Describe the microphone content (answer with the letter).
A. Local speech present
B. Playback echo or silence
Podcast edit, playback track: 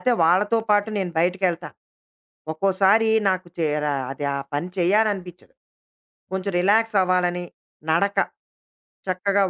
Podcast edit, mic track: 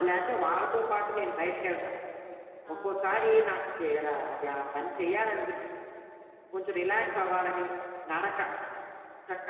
A